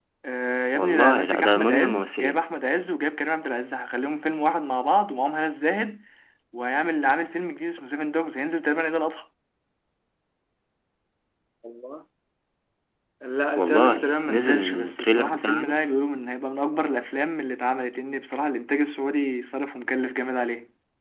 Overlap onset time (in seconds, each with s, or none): 0.8 s